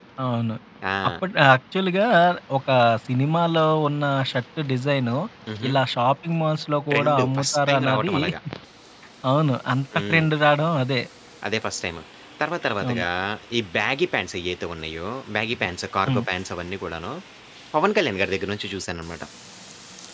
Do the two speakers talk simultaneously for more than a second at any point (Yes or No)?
Yes